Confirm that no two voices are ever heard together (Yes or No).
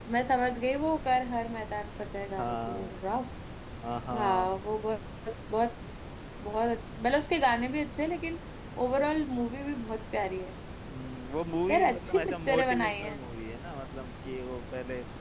No